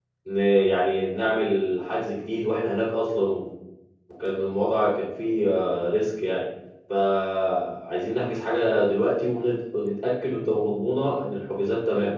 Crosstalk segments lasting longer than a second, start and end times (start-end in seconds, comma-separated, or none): none